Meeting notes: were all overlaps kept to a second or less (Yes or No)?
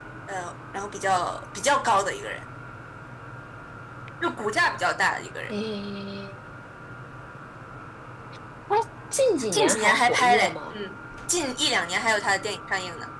No